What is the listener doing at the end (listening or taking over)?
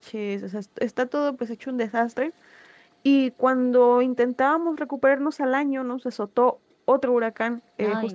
listening